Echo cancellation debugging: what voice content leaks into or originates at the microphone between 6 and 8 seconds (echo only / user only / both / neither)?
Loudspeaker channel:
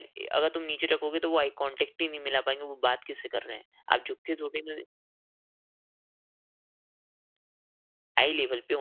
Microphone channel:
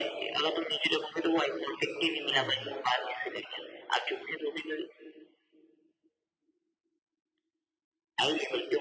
neither